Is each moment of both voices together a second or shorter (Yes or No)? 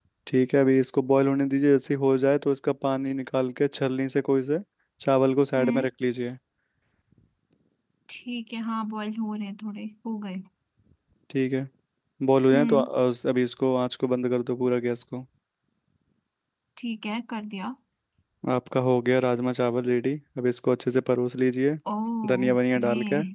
Yes